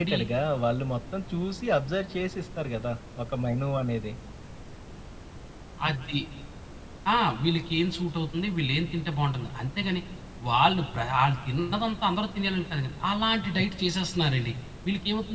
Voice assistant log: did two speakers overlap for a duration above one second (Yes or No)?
No